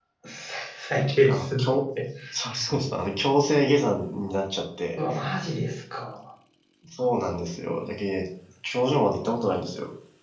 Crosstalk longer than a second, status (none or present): none